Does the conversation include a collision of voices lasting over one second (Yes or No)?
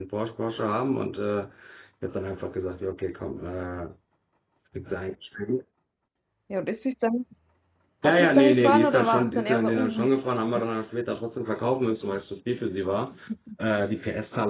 Yes